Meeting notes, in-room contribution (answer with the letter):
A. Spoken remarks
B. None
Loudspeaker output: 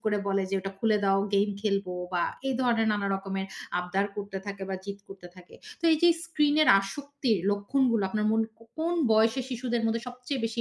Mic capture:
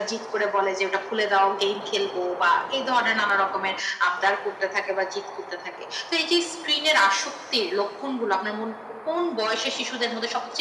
B